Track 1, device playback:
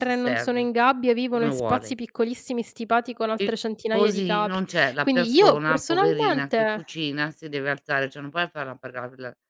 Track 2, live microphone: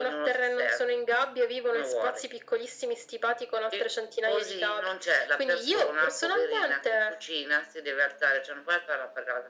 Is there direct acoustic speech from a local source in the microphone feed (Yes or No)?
No